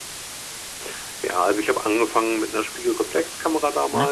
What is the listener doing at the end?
listening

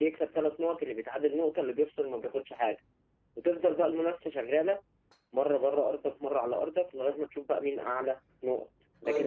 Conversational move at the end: taking over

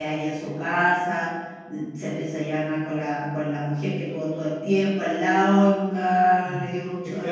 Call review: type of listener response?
taking over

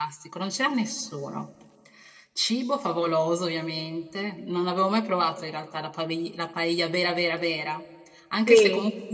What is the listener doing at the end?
listening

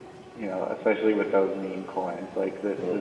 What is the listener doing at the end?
listening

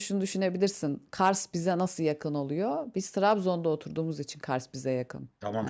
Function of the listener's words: taking over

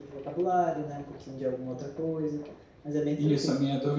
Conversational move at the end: taking over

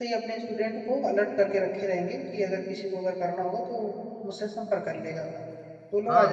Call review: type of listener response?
taking over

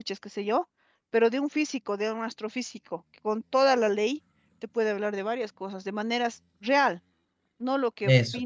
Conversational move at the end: listening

